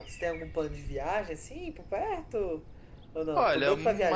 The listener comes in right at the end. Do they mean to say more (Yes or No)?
Yes